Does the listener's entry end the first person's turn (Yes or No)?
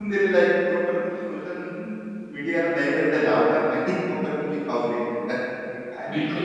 Yes